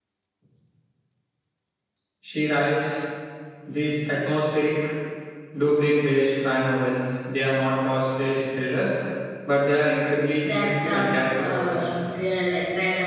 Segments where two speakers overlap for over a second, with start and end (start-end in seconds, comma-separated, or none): 10.4-11.9